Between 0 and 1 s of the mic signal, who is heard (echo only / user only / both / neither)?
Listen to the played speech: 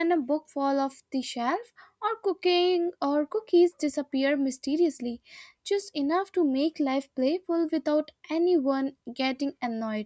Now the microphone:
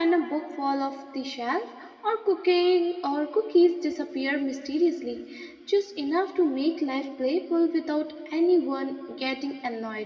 echo only